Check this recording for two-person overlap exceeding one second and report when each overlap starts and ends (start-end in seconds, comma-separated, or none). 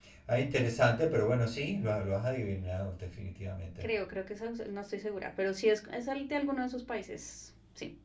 none